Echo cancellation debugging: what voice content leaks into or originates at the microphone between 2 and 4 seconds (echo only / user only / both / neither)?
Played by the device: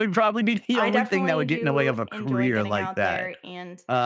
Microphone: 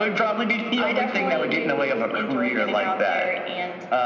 echo only